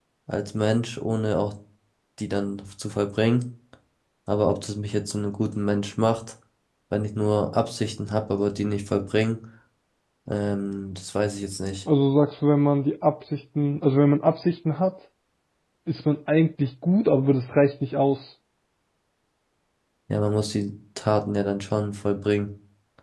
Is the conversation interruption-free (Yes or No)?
Yes